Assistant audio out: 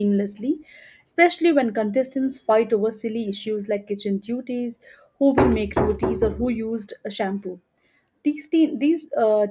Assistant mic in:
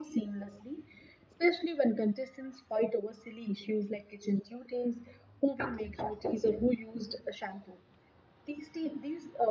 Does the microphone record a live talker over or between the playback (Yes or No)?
No